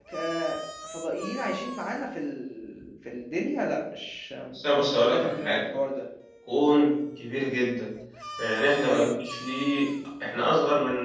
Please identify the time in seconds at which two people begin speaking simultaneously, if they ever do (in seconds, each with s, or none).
4.5 s